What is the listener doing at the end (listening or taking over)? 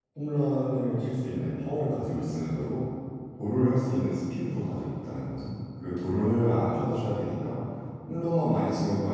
listening